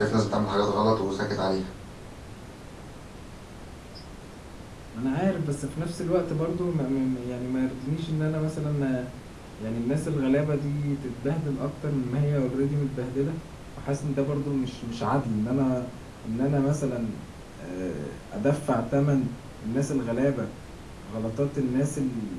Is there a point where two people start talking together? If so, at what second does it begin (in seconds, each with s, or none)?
none